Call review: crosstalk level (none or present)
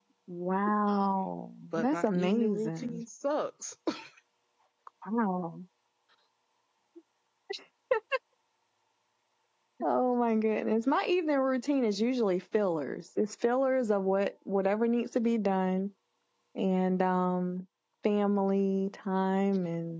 present